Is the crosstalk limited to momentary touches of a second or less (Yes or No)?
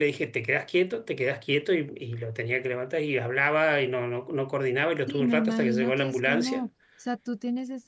No